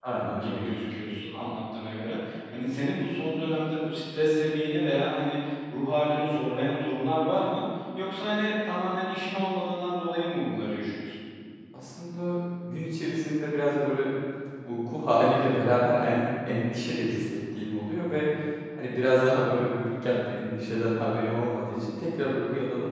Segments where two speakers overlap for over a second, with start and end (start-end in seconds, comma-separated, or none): none